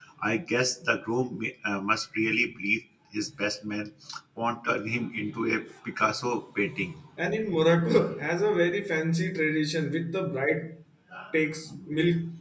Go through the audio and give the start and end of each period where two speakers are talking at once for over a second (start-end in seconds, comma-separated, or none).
none